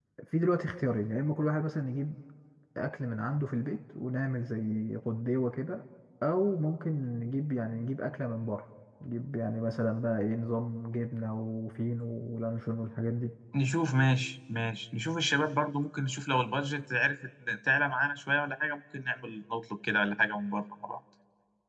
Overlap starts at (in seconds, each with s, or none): none